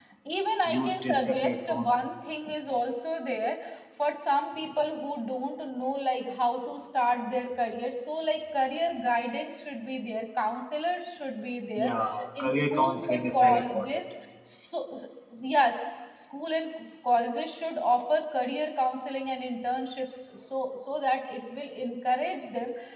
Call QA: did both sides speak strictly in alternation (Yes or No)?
No